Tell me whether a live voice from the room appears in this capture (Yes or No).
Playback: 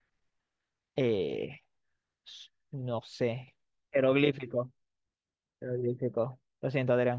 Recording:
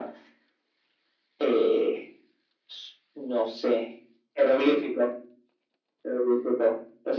No